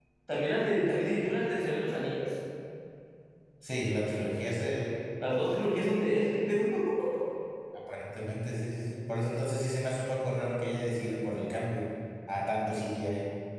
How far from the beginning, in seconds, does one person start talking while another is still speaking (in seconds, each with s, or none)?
none